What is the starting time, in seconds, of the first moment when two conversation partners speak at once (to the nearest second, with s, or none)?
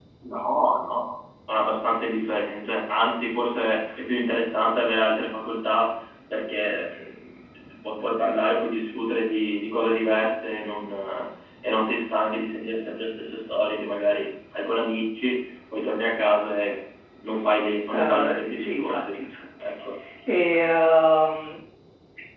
18 s